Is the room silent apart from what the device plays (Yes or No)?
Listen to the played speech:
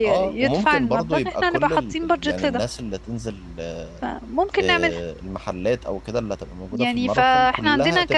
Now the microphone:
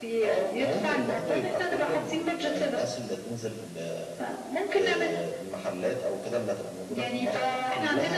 Yes